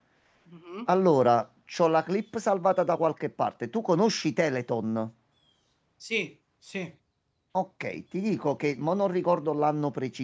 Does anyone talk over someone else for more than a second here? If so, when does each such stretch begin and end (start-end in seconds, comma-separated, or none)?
none